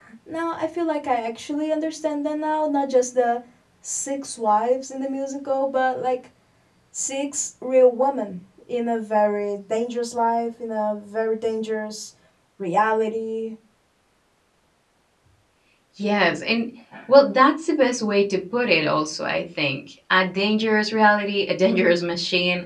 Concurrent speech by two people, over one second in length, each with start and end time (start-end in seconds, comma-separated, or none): none